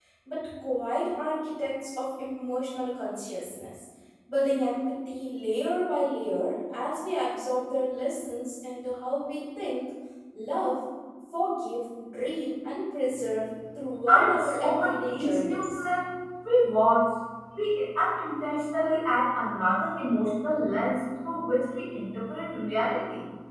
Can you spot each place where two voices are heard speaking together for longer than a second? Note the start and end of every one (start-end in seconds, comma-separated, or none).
14.1-15.8